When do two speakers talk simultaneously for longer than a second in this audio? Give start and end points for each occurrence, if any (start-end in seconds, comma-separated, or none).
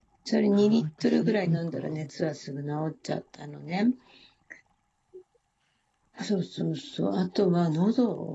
0.5-2.1